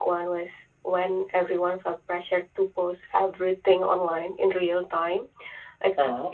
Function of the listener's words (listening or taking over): listening